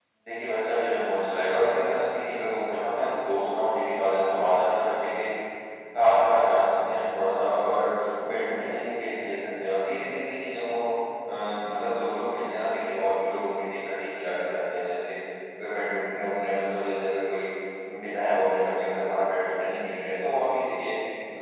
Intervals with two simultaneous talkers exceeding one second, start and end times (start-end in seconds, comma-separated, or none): none